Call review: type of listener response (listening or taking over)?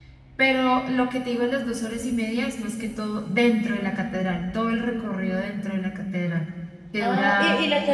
taking over